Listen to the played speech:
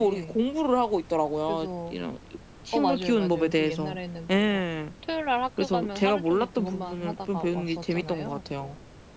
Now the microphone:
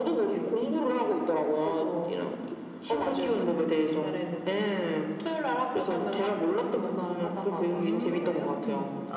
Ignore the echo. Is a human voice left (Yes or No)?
Yes